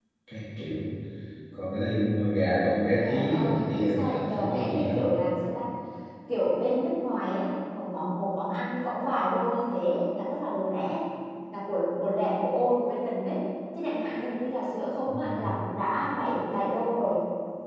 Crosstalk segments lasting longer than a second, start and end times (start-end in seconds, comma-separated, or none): 3.0-5.0